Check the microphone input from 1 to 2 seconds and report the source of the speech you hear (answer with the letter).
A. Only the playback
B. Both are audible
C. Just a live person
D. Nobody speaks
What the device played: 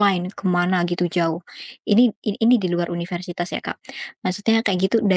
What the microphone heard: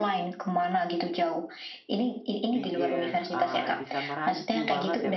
A